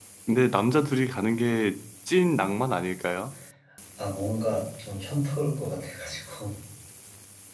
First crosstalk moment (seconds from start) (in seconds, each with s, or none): none